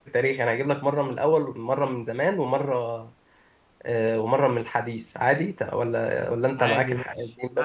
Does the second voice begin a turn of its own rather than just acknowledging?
Yes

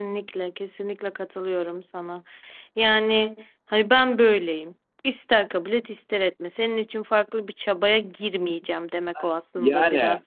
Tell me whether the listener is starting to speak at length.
Yes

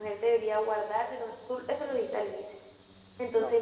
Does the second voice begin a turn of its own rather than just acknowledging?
No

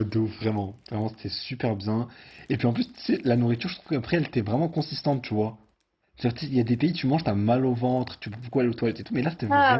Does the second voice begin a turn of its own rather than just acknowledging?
Yes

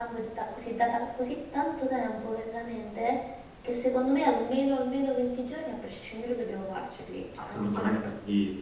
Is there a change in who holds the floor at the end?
Yes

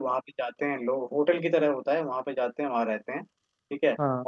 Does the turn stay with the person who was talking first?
Yes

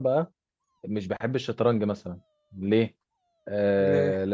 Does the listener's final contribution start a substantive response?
No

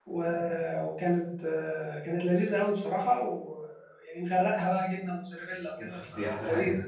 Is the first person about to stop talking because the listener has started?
Yes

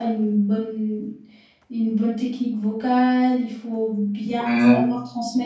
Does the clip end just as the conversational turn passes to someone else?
No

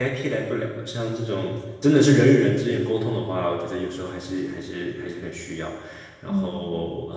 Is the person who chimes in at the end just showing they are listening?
Yes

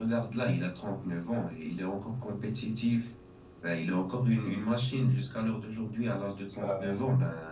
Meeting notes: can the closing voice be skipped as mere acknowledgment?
Yes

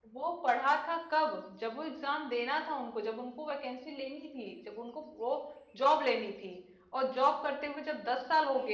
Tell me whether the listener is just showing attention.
Yes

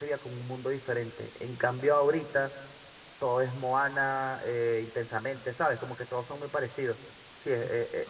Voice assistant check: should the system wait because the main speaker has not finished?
Yes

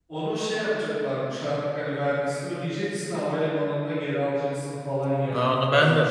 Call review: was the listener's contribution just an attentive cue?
No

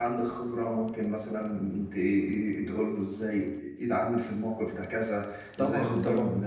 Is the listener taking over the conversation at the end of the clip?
No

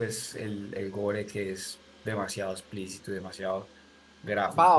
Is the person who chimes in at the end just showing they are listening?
No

